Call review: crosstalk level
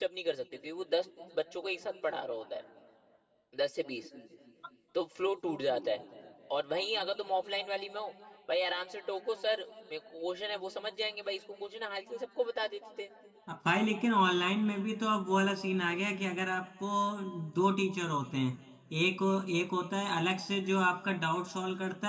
none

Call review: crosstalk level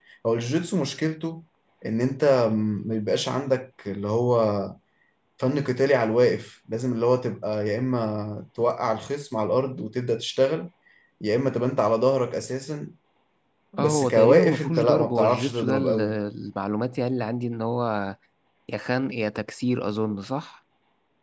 present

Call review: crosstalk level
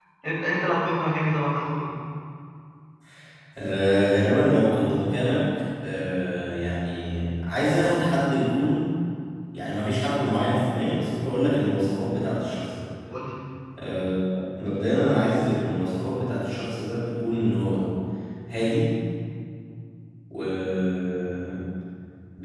none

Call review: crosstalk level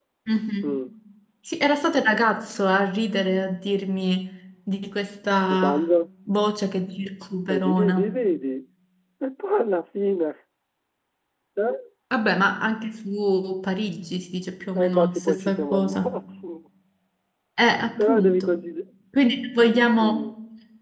present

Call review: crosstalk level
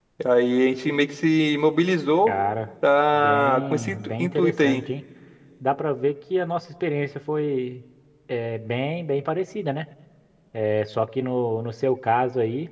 present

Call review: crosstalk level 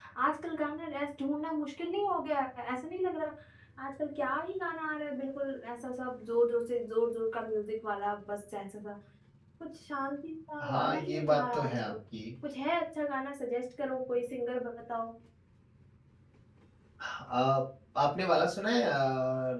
present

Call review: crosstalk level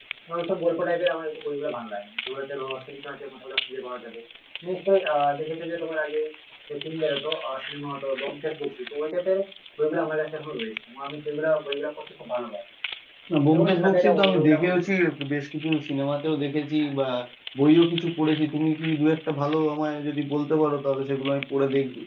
present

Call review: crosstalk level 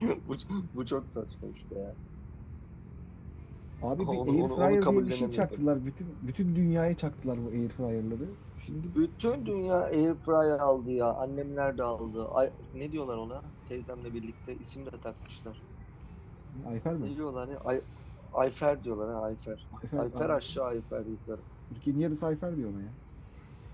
present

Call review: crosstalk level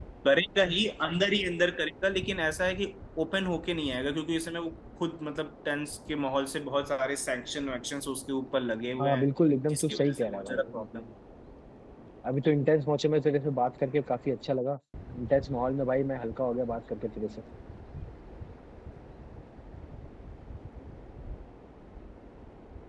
present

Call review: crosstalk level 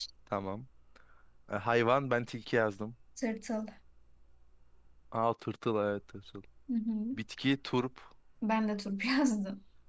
none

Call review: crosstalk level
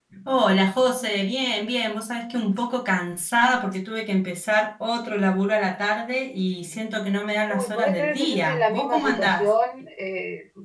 present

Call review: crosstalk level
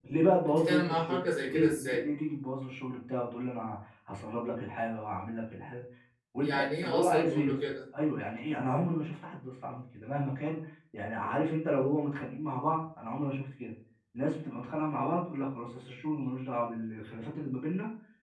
present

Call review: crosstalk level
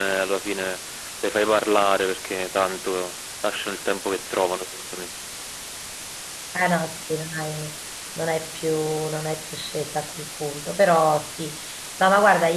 none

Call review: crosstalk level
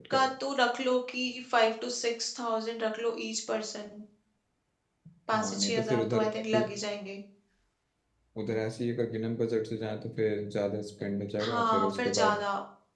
present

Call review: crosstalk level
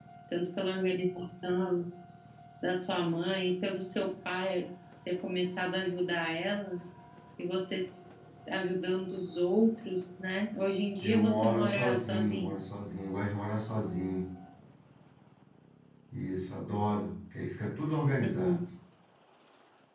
present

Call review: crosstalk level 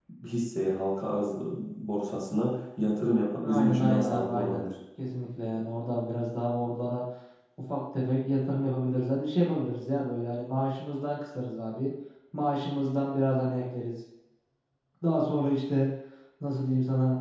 present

